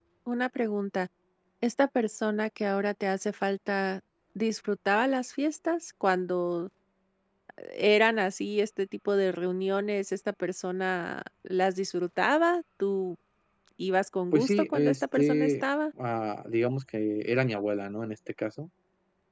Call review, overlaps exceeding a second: present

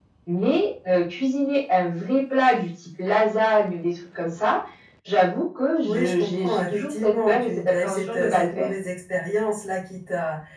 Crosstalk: present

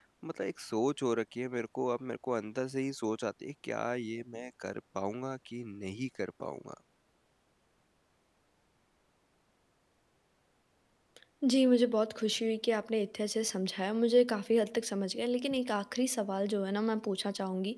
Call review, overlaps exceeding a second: none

